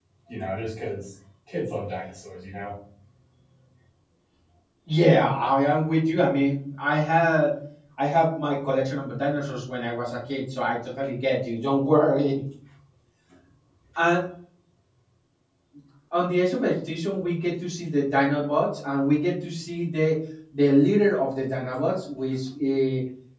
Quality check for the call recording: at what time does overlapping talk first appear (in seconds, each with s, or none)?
none